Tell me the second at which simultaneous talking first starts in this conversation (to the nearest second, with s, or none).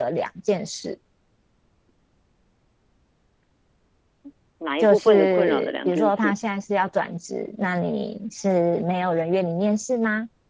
5 s